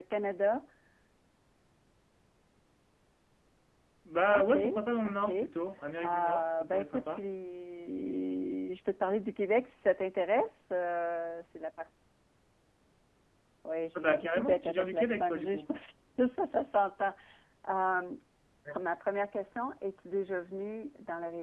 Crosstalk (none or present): present